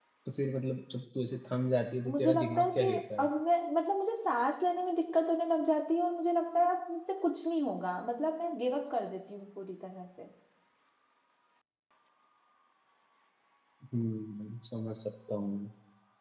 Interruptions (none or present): present